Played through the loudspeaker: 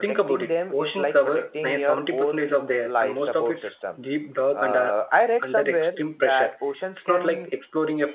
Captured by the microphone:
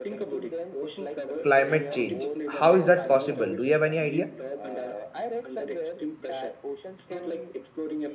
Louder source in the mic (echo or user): user